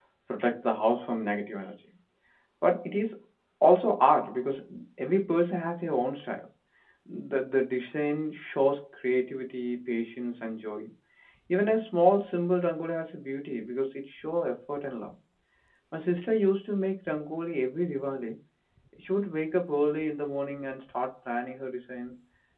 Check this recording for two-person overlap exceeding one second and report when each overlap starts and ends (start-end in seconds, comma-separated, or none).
none